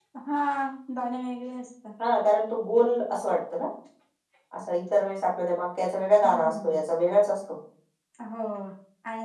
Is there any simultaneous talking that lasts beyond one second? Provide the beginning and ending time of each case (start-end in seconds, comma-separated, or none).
none